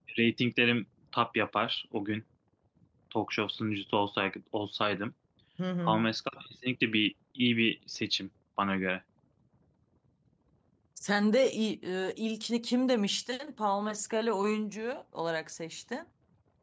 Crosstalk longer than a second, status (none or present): none